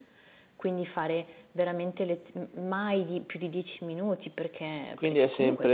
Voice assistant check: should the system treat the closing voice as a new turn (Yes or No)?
Yes